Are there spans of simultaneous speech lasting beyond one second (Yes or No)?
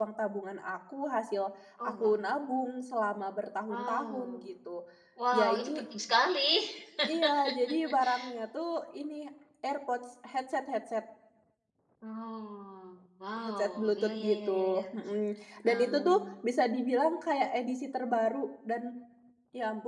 Yes